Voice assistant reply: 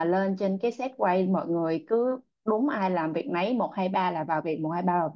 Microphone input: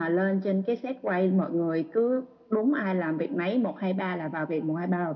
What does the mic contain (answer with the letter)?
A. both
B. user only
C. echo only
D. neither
C